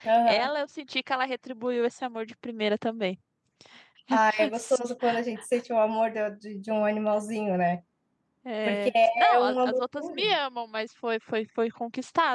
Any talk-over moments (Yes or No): Yes